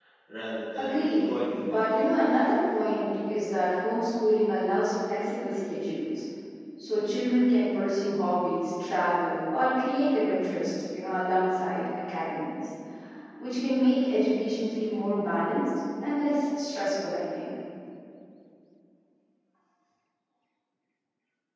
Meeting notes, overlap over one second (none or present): present